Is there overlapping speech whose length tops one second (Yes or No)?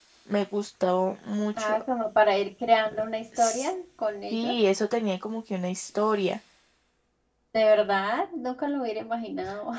No